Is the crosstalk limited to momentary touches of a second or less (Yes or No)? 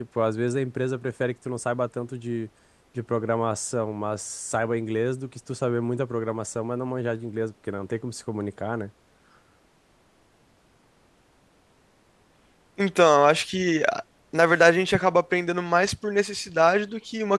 Yes